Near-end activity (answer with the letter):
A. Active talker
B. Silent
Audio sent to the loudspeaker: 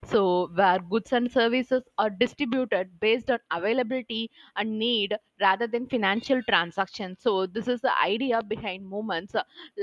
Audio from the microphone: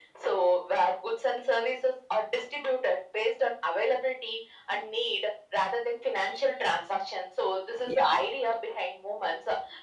A